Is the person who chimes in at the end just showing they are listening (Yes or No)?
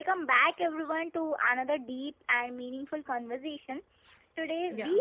Yes